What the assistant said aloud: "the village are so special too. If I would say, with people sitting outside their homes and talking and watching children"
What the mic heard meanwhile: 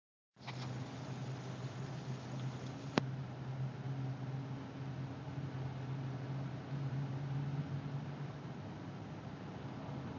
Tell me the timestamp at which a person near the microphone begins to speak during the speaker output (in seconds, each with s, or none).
none